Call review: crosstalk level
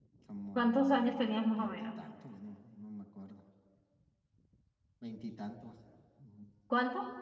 present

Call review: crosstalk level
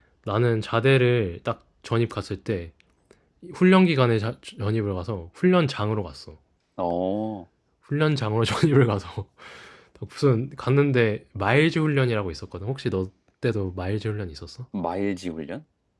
none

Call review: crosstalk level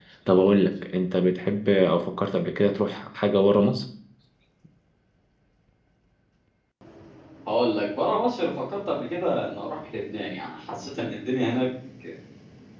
none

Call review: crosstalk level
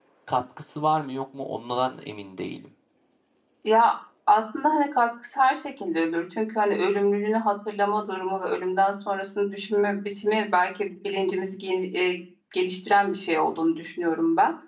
none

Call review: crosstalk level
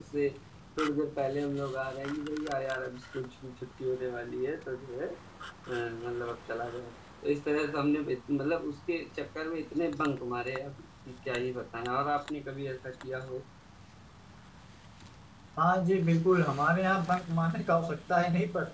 none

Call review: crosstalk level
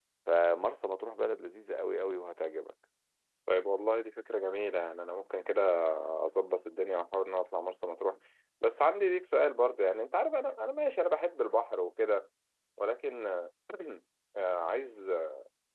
none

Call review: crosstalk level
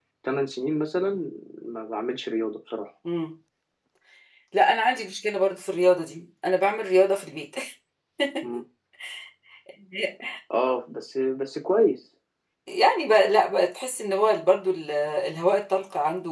none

